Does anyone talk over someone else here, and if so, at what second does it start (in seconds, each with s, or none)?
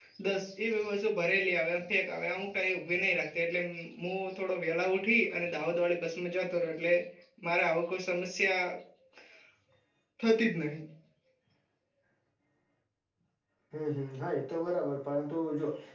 none